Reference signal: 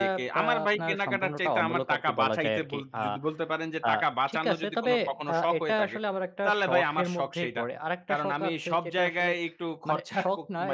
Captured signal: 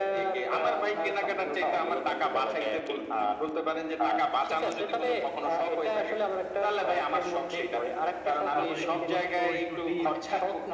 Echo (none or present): present